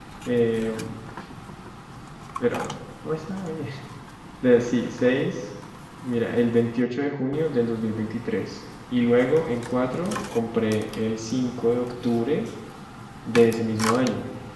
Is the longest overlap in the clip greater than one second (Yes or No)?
No